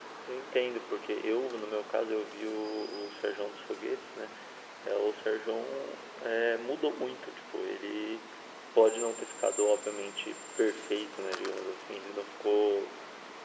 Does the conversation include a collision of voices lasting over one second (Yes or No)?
No